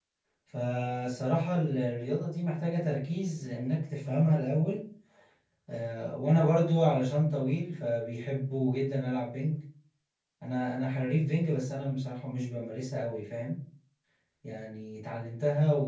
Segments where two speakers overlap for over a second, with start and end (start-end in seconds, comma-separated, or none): none